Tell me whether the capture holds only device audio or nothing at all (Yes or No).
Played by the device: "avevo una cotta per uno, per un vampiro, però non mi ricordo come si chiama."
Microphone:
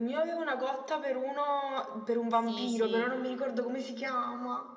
No